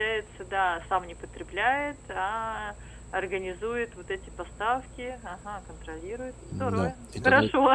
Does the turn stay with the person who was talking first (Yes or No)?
No